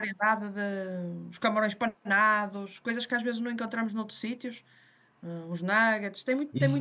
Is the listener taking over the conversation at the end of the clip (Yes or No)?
Yes